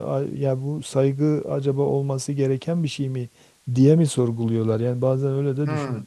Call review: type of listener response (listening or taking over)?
taking over